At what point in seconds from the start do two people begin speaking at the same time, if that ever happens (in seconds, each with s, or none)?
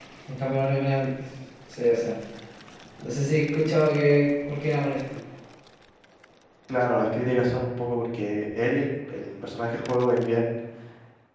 none